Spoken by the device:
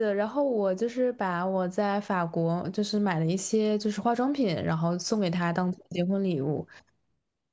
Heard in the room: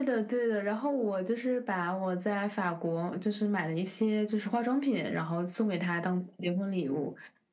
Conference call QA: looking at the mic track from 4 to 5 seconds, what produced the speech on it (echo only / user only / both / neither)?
echo only